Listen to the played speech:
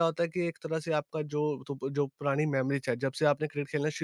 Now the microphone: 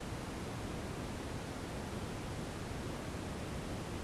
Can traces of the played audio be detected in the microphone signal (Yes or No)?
No